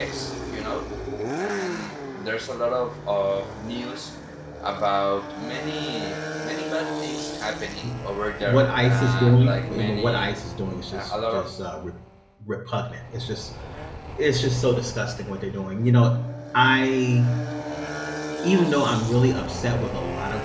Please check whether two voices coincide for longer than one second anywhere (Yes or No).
Yes